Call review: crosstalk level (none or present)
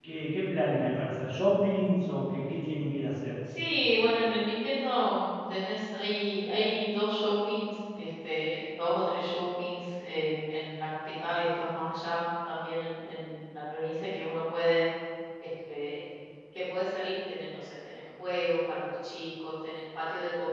none